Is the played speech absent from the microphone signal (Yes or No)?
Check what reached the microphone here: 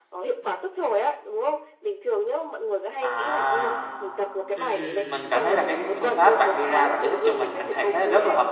No